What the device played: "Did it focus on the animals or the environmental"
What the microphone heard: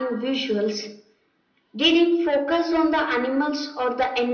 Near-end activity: none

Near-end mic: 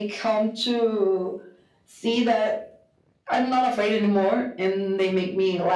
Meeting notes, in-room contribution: none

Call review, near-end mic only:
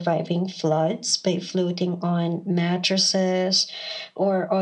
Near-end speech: none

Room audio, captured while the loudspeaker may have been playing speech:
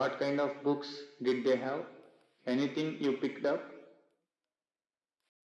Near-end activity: none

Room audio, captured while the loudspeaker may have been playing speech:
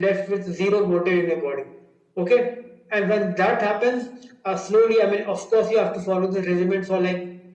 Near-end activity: none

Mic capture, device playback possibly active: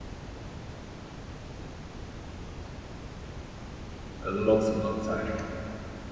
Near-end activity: present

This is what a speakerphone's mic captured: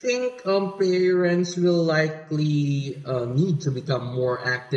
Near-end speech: present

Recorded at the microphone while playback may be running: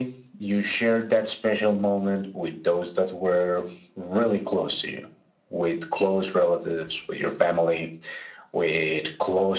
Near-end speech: none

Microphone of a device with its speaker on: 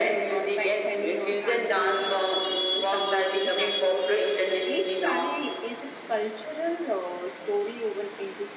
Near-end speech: present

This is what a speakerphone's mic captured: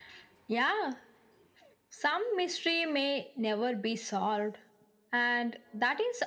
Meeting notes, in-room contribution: none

